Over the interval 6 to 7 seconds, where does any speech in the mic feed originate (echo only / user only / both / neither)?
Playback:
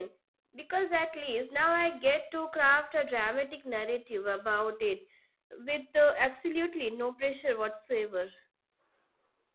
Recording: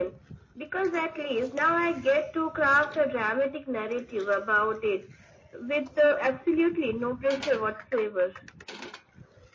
echo only